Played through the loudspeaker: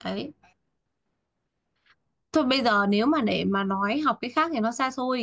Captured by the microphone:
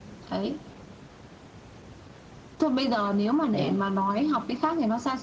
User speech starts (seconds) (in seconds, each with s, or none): 3.5 s